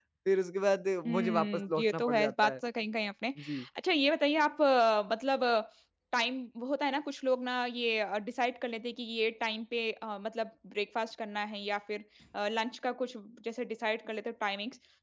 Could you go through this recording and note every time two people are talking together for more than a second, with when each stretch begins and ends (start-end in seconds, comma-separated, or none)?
1.1-2.5